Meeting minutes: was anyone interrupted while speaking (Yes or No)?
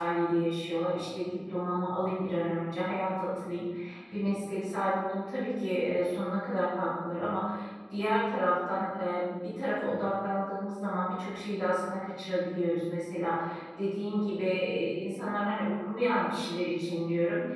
No